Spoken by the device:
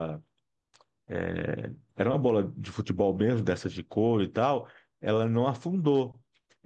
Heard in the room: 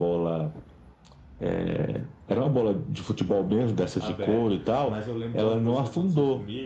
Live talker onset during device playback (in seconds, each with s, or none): 4.0 s